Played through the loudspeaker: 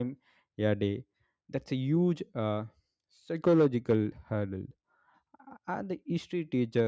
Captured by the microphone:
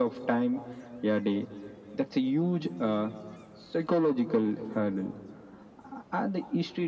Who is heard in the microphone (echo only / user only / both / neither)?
echo only